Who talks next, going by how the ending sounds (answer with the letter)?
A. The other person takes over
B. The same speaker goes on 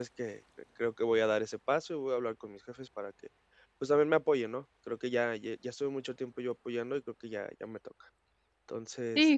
A